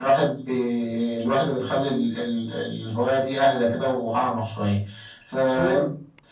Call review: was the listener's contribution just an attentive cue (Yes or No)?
Yes